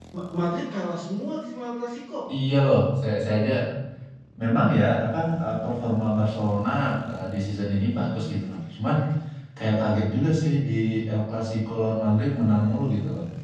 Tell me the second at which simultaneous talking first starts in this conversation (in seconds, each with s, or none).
none